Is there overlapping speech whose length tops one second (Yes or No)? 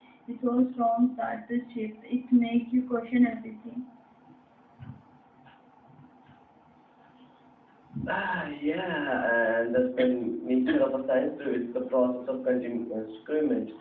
No